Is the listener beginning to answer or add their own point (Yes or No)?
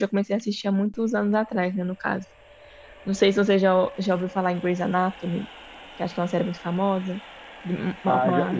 Yes